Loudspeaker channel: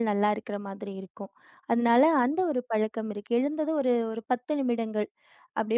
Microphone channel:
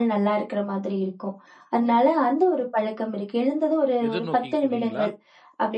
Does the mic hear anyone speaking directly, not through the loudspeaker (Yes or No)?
Yes